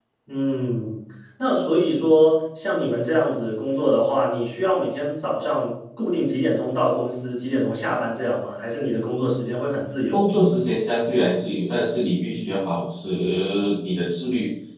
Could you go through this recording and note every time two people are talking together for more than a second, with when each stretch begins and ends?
none

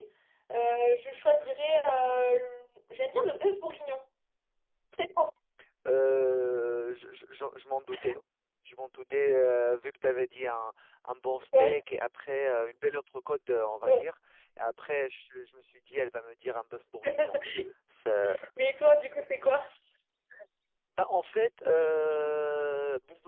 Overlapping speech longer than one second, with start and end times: none

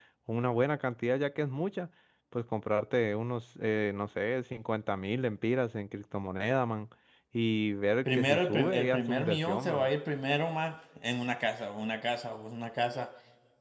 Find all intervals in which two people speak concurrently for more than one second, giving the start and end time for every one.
8.1-9.9

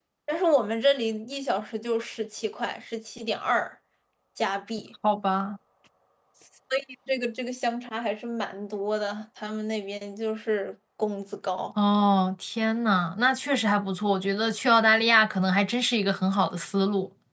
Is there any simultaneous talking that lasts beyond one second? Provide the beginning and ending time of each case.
none

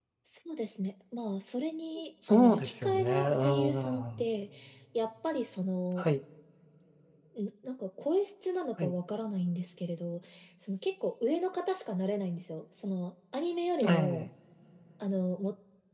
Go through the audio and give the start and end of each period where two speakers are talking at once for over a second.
2.3-4.3

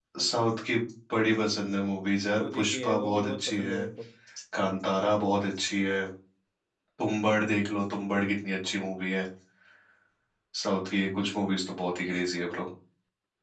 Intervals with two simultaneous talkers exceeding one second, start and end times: 2.4-3.8

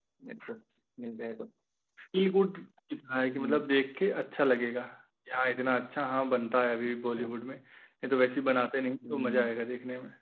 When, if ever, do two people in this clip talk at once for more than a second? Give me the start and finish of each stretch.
none

